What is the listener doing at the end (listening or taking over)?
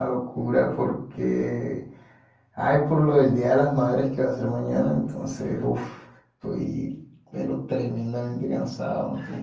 taking over